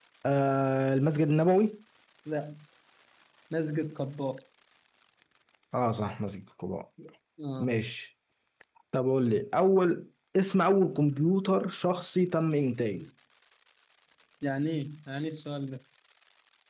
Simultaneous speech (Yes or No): No